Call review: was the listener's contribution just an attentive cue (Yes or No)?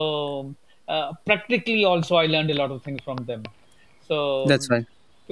Yes